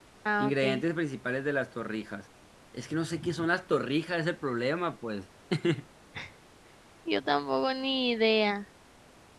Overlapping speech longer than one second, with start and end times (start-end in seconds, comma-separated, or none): none